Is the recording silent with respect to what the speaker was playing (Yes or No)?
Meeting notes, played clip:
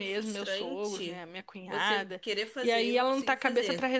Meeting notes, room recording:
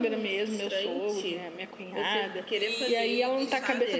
No